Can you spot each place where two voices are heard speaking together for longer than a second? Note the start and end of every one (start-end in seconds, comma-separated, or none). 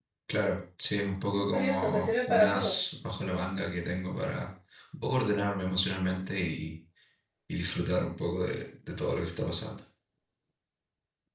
1.3-2.8